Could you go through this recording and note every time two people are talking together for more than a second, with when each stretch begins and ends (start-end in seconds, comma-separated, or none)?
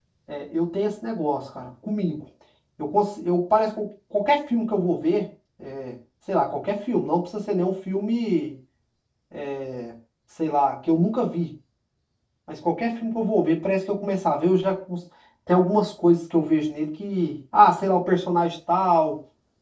none